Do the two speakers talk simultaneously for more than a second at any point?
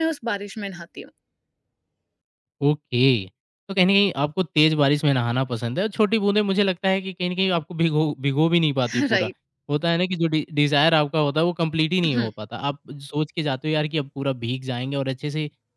No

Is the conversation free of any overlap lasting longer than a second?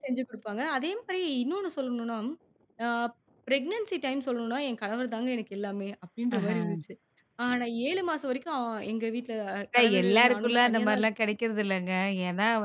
No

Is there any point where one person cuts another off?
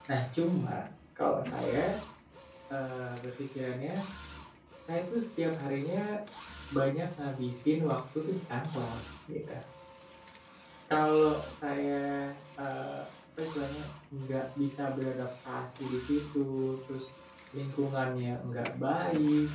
No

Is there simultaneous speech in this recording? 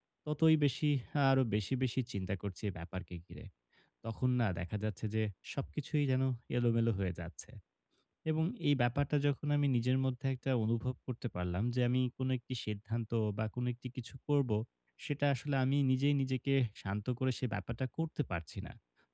No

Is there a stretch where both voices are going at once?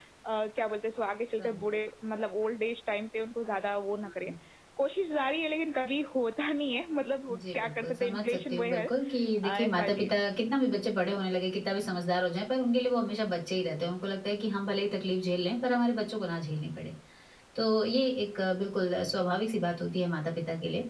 Yes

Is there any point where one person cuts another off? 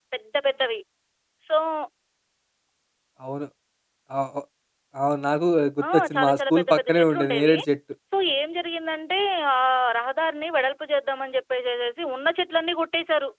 Yes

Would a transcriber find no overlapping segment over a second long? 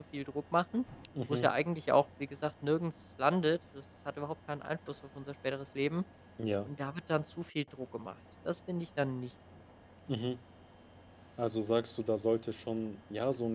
Yes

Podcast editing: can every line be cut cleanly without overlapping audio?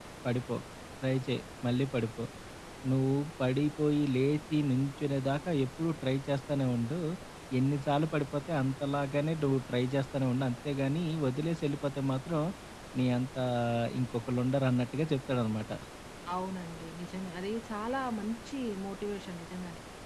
Yes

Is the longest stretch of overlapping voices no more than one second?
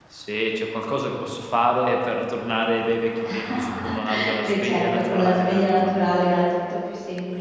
No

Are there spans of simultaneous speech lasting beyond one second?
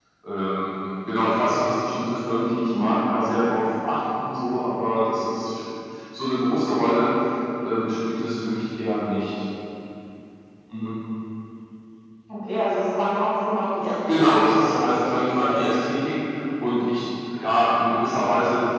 Yes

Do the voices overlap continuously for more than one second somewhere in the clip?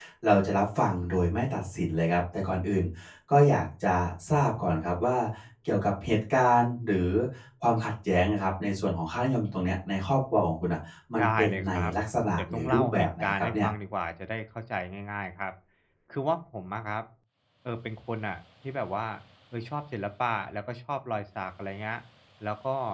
Yes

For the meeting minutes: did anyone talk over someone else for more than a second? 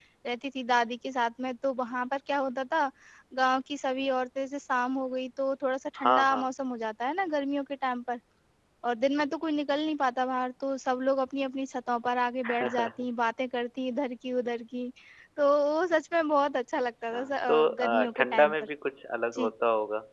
Yes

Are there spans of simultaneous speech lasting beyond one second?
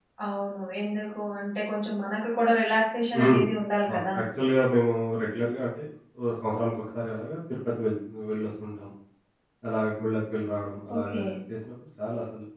No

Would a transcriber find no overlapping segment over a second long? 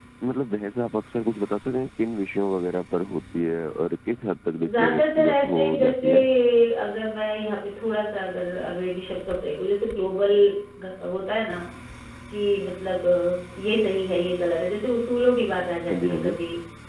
No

